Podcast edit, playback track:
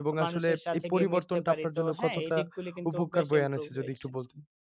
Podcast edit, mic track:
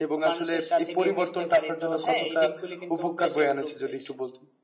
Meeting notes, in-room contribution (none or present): none